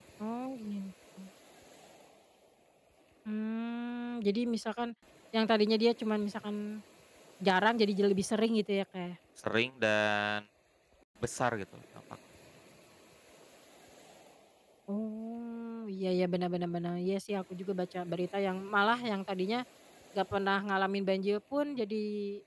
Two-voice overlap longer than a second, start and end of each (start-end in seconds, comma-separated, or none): none